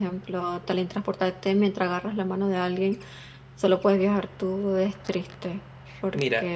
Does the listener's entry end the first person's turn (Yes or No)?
Yes